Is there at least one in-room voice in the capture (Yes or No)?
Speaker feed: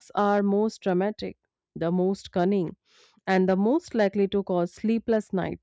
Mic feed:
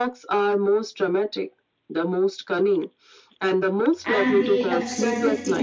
Yes